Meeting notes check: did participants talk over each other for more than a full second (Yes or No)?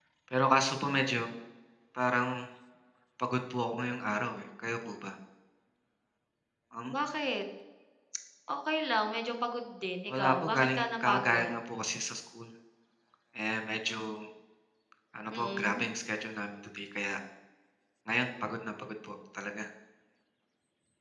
Yes